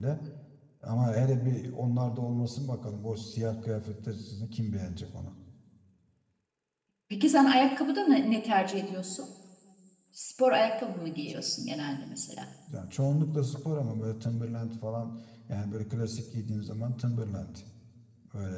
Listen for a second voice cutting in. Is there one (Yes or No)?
No